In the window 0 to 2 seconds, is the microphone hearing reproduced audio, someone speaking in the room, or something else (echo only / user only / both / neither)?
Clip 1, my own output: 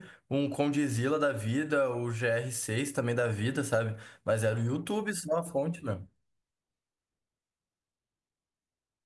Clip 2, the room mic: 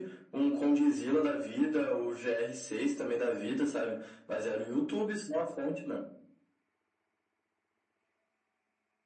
echo only